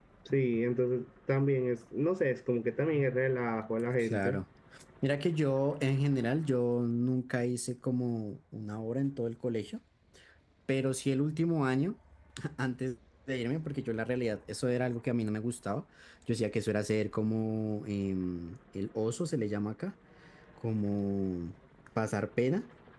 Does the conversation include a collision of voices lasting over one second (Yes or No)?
No